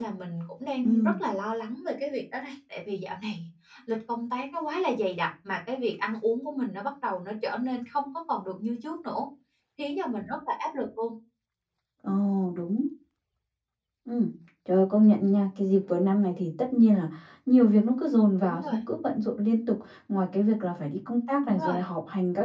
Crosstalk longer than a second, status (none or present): none